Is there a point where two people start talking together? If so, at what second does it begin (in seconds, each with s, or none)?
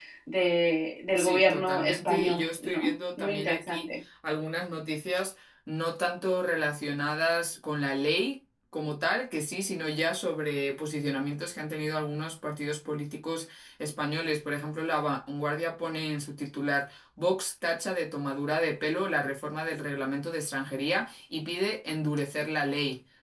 1.2 s